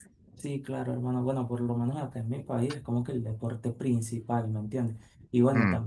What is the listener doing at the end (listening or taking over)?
listening